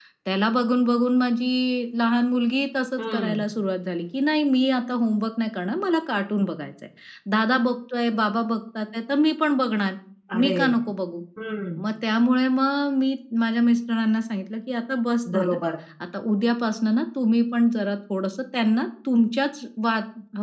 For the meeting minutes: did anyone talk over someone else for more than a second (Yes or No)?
No